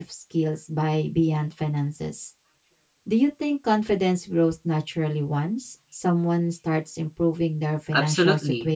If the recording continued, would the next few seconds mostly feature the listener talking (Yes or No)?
Yes